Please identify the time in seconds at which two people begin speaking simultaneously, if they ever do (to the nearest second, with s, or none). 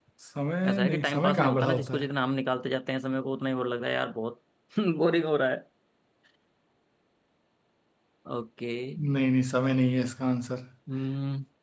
1 s